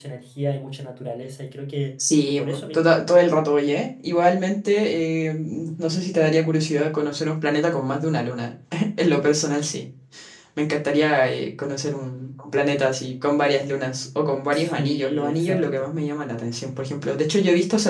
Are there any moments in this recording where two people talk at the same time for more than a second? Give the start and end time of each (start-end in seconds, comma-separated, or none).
14.5-15.9